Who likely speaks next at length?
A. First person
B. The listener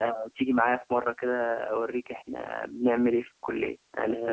B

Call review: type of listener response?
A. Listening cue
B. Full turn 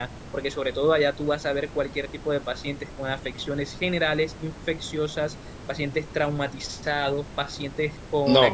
A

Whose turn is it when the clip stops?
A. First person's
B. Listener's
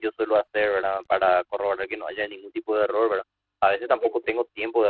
A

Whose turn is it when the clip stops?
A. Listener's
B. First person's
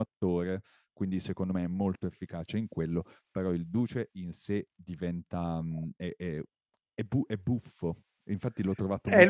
A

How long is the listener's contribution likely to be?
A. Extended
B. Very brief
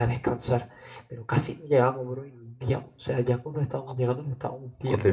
A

